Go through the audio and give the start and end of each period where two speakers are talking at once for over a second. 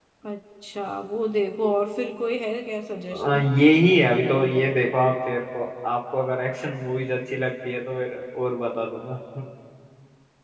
none

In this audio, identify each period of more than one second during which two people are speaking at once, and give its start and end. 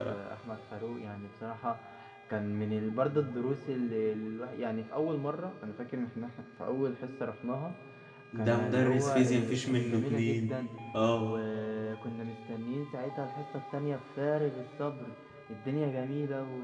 8.3-10.6

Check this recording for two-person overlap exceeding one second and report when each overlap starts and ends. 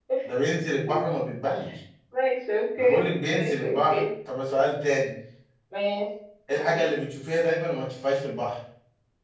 2.8-4.0

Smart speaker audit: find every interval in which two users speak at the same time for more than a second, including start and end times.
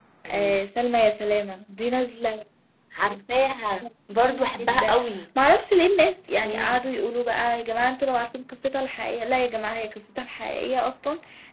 none

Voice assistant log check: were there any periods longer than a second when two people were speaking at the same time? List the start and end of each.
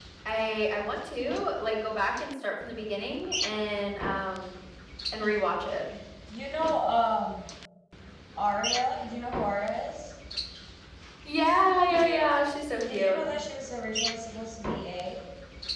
none

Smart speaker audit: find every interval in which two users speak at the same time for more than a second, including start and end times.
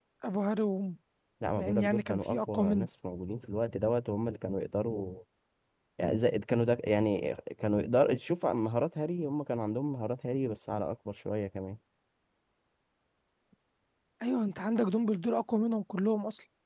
1.6-2.9

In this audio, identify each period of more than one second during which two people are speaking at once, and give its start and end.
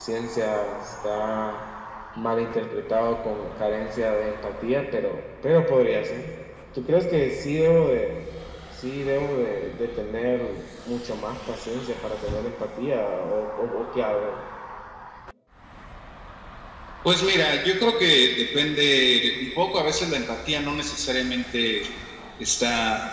none

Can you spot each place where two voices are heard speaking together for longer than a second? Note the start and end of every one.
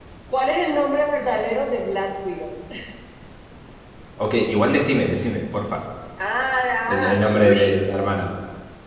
6.9-8.3

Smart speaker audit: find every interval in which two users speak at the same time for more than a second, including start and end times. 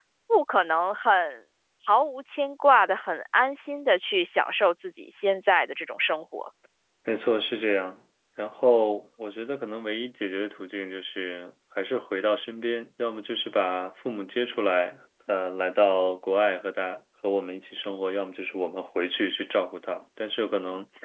none

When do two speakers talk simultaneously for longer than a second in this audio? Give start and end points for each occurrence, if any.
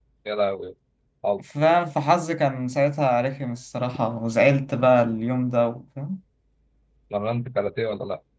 none

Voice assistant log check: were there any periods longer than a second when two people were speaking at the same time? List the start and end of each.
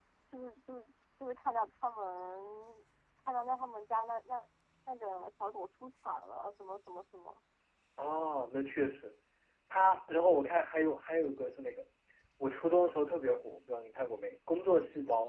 none

